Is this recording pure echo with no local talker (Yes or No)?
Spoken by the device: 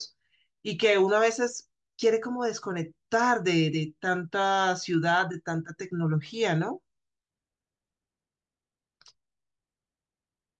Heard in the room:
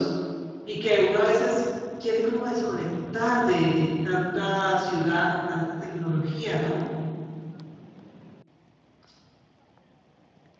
Yes